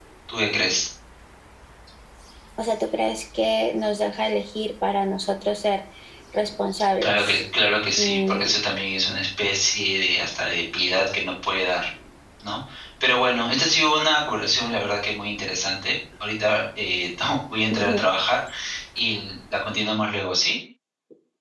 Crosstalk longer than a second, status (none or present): none